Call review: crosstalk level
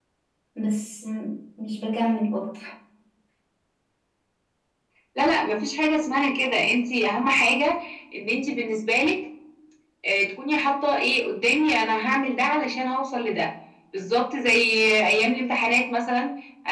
none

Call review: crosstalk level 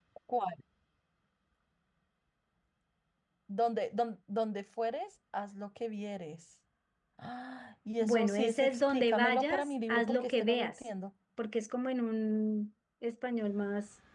present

